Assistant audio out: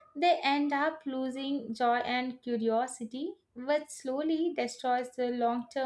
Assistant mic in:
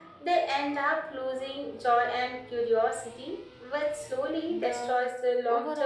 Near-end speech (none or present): present